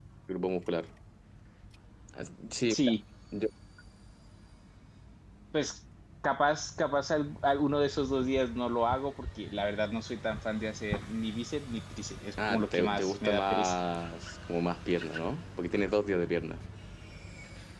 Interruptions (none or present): present